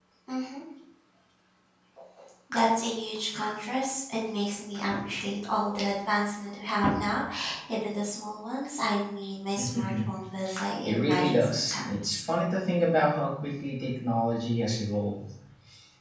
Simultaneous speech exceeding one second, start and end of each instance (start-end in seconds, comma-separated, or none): 10.8-12.2